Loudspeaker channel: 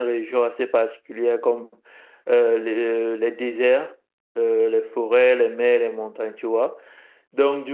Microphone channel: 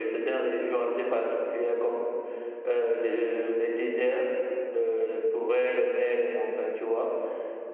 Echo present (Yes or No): Yes